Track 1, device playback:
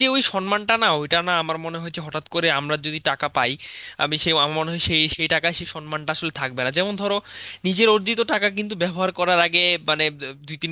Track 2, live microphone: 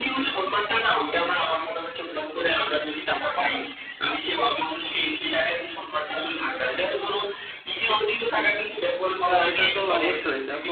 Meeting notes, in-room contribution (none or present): present